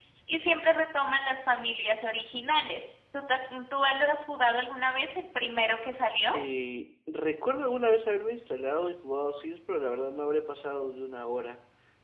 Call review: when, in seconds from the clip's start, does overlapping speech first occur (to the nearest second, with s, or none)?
none